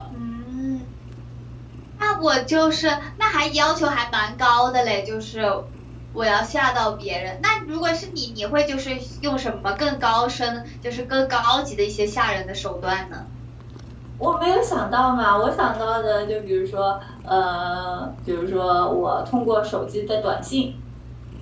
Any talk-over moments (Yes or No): No